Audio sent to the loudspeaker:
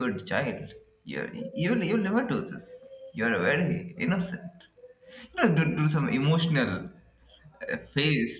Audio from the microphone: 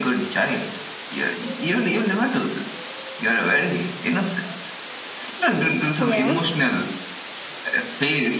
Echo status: present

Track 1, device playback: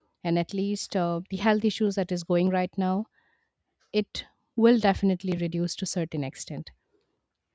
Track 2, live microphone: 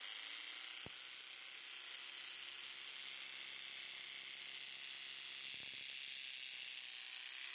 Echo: none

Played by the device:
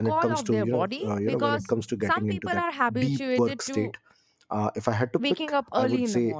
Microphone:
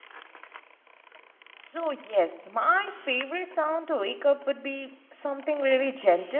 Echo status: none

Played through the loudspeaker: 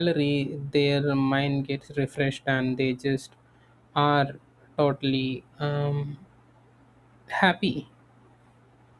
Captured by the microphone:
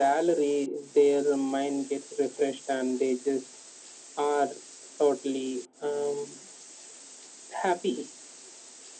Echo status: present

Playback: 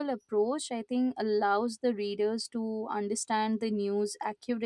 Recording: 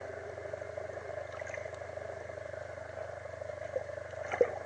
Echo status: none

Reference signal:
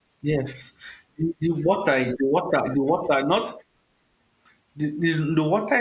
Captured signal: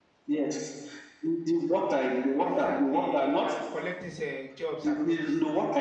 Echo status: present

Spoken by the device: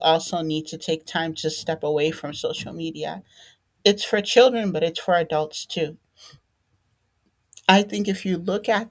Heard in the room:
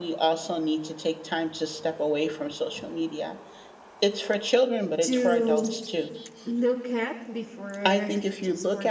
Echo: present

